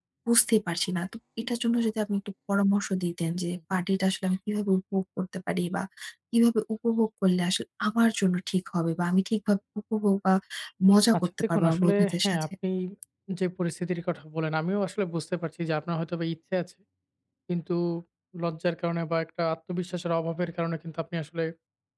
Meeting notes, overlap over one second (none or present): present